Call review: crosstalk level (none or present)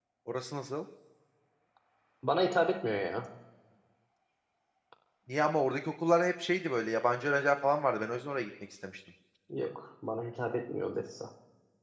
none